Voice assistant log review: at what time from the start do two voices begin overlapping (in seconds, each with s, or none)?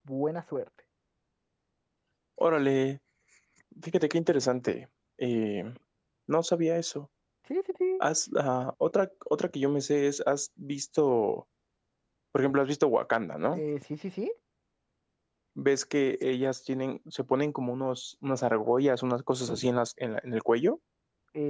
none